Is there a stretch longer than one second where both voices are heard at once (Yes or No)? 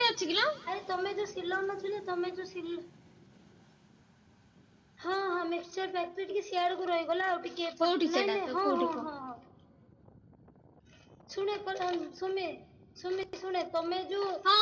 Yes